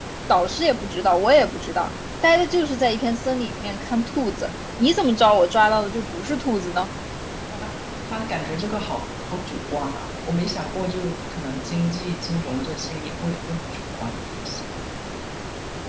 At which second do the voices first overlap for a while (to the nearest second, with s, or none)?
none